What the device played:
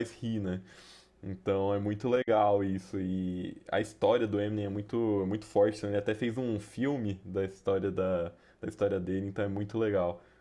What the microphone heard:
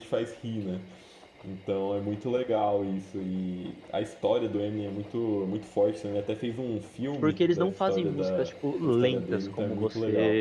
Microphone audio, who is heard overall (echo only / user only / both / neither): both